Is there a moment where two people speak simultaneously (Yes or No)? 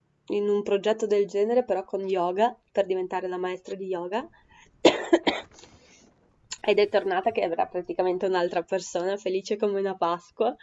No